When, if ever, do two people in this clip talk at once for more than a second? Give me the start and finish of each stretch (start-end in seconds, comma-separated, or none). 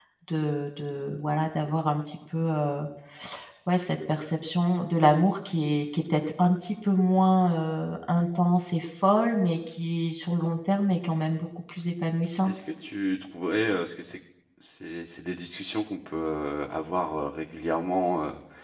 none